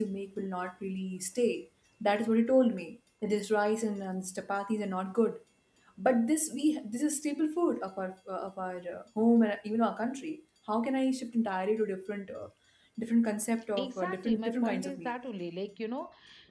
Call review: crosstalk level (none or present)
present